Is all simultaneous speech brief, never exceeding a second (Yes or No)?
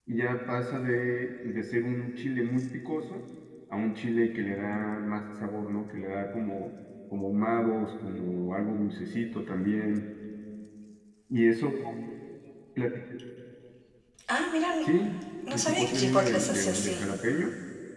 No